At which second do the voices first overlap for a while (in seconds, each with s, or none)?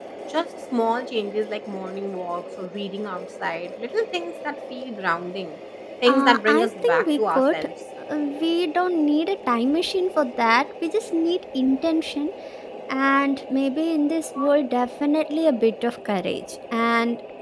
6.1 s